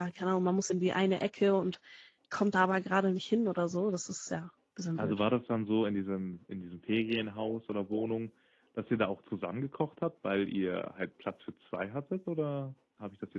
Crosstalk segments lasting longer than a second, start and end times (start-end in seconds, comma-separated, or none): none